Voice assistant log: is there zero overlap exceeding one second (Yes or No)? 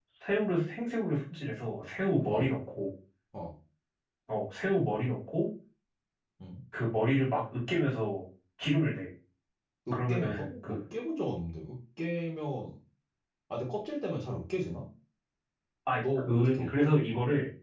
No